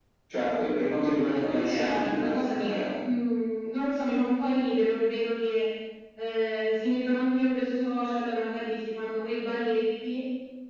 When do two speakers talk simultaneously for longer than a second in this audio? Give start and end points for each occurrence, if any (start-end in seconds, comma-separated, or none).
1.3-2.8